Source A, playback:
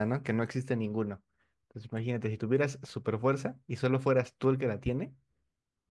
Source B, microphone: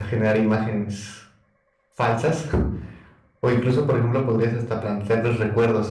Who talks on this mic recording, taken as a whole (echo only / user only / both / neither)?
user only